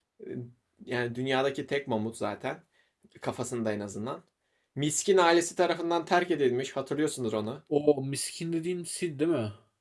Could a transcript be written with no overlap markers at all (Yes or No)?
Yes